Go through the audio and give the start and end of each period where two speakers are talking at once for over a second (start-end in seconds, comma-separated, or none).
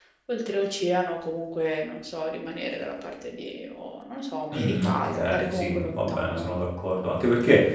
4.5-6.5